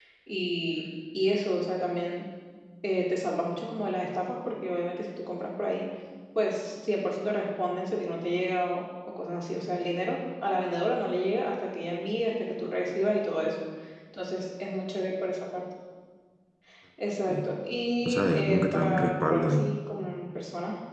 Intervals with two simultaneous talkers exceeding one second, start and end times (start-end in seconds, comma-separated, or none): 18.1-19.6